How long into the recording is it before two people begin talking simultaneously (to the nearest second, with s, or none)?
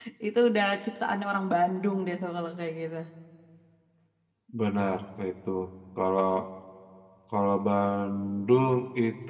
none